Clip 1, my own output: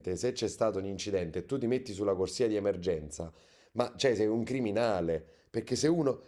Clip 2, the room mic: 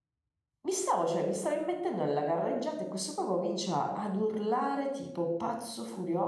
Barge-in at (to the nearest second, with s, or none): 1 s